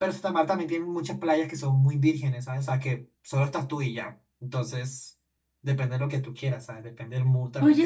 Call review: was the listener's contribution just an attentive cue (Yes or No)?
No